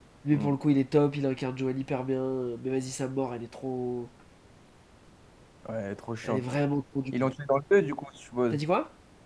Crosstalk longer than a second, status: none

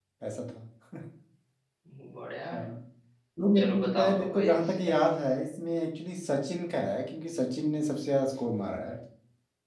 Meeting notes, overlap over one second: present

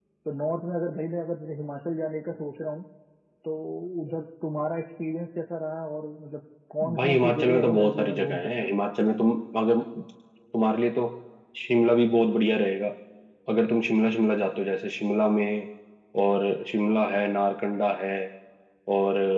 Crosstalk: present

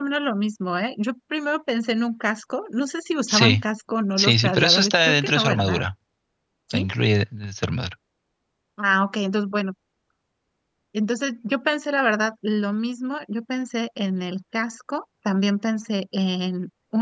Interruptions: present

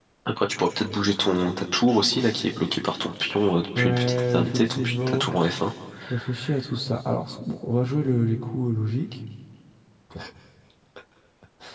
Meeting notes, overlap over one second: present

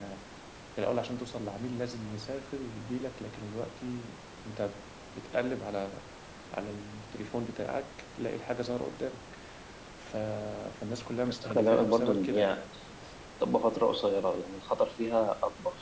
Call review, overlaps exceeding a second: present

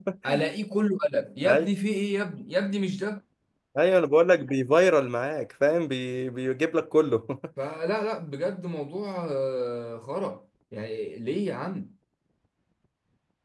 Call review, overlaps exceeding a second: none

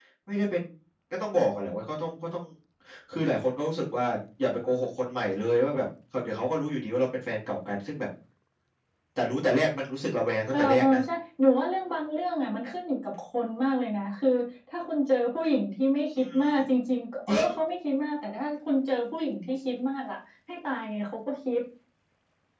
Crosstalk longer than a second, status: none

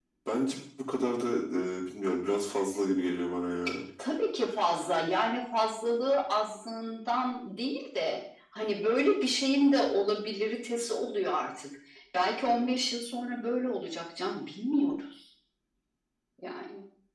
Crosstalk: none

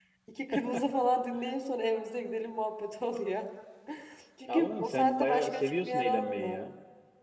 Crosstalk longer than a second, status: present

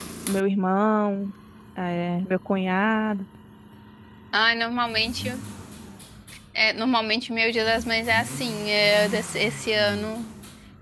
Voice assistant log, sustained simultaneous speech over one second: none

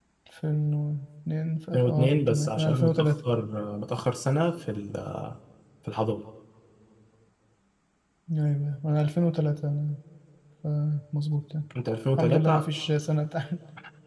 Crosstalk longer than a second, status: present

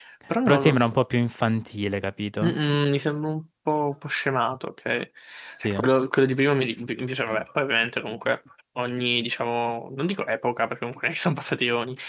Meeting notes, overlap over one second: none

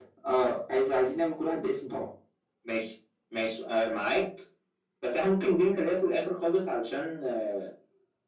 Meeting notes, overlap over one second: none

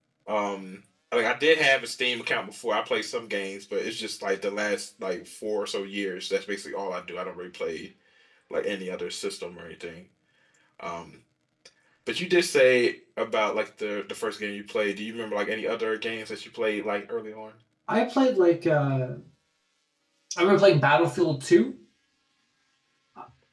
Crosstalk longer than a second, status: none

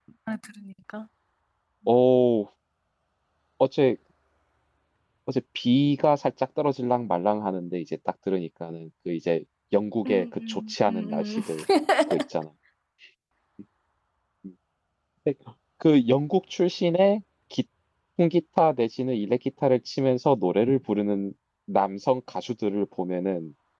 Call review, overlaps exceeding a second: present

